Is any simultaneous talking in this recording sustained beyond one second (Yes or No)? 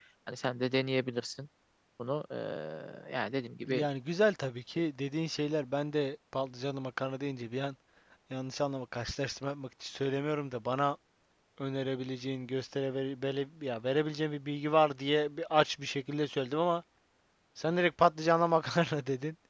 No